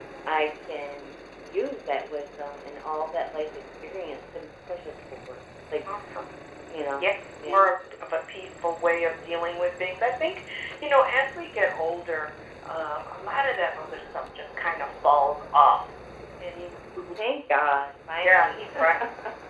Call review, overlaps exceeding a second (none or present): none